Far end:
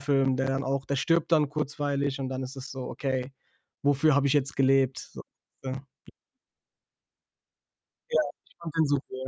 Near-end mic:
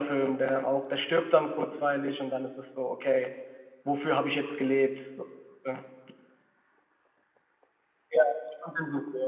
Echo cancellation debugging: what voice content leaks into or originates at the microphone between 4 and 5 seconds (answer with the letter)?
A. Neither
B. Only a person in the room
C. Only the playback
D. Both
C